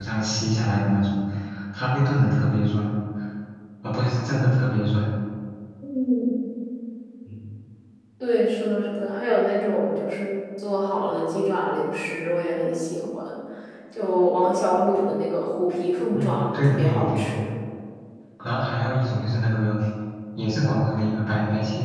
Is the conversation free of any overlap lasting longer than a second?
No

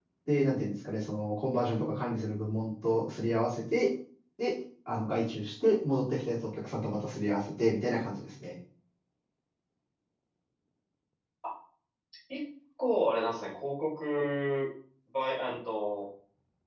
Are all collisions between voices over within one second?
Yes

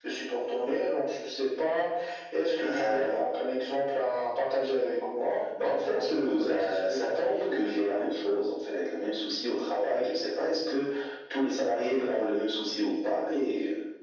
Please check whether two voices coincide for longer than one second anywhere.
Yes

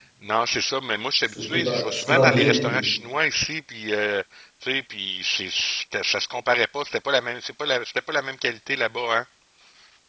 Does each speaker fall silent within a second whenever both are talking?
No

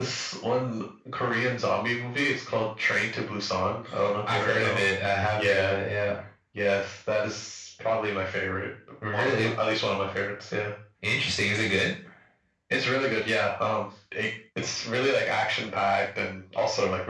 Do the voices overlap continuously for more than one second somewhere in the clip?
No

